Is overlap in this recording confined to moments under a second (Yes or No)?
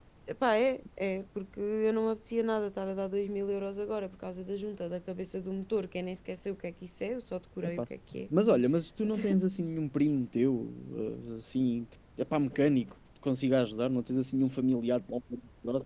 Yes